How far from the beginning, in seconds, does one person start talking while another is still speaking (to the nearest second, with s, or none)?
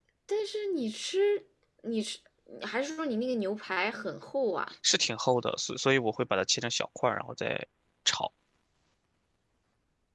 none